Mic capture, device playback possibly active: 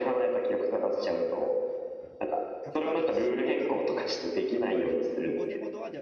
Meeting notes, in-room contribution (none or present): present